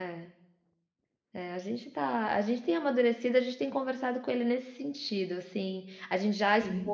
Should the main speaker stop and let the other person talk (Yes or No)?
No